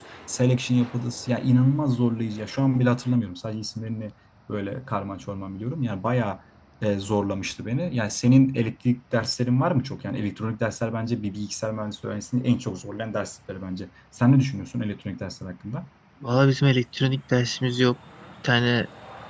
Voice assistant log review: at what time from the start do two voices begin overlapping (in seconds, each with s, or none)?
none